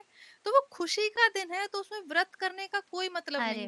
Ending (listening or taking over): taking over